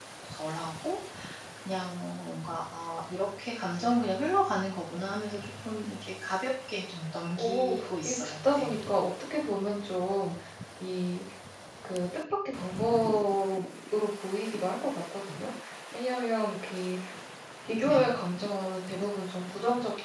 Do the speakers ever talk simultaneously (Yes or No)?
Yes